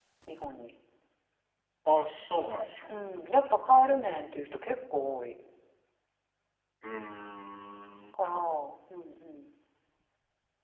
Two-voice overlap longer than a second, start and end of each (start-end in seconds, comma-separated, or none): none